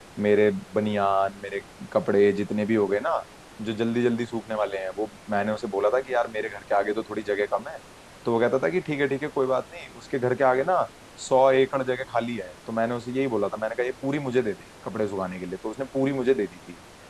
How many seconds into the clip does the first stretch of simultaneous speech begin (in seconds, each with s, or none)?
none